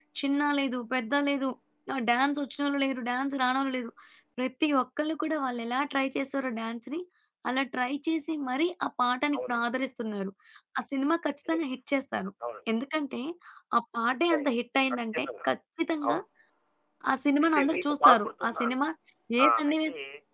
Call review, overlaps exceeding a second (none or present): present